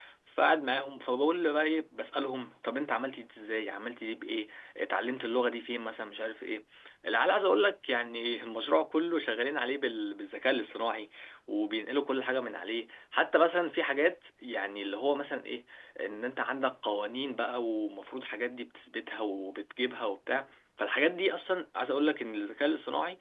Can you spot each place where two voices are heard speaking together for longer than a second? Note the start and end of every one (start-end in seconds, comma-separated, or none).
none